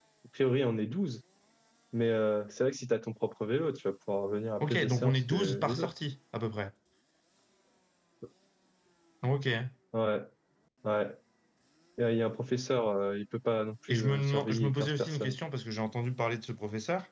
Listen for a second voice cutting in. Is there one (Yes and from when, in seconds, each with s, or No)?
Yes, from 4.6 s